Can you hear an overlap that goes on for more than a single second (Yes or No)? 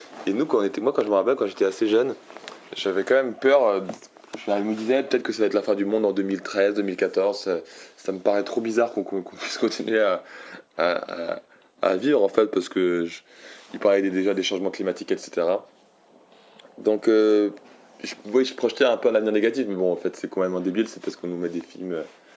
No